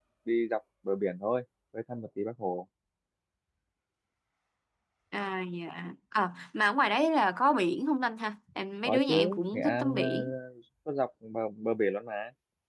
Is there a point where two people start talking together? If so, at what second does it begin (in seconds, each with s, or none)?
8.8 s